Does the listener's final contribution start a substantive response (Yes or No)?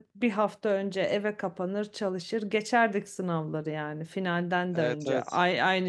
No